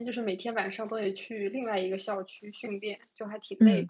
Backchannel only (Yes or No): No